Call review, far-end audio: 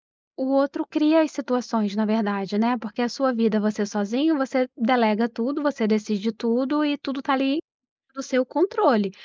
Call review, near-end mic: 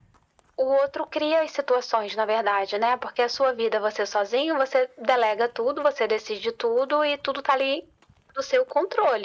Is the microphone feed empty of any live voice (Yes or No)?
Yes